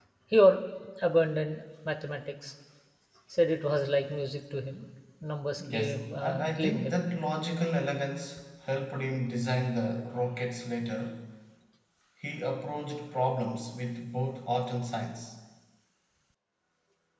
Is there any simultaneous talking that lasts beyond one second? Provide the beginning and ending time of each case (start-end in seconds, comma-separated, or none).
5.6-7.0